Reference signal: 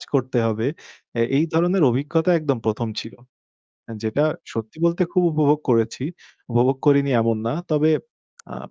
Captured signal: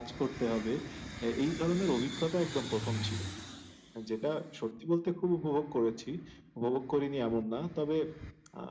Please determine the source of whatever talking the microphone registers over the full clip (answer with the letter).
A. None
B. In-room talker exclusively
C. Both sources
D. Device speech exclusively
D